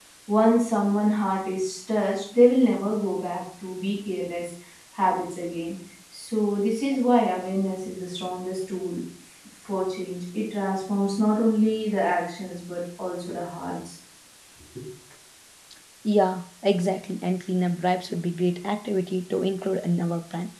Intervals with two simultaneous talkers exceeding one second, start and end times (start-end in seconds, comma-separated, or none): none